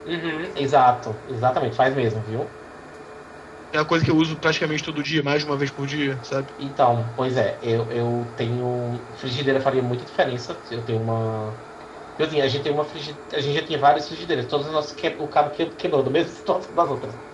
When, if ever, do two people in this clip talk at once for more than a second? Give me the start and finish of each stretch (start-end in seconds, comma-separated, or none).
none